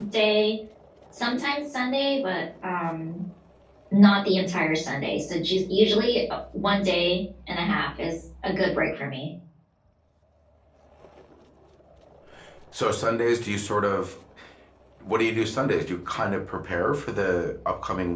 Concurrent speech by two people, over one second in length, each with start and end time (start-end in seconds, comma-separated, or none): none